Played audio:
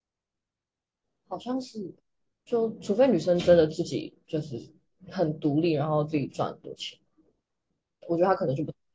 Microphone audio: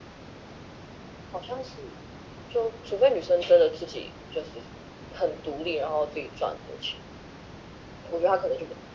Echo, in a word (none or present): present